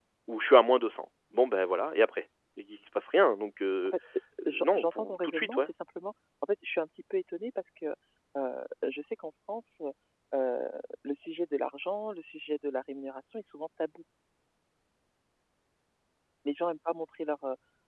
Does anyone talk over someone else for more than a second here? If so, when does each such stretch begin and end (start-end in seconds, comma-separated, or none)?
4.4-5.7